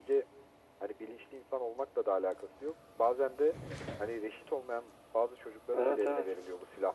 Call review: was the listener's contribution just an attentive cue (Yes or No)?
Yes